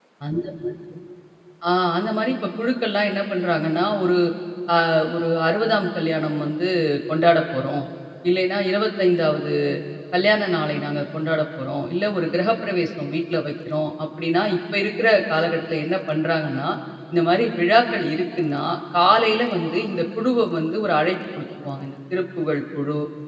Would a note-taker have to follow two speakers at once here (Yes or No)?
No